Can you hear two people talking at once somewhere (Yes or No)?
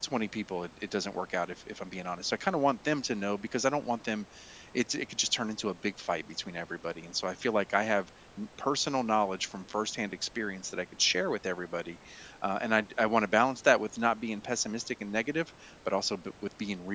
No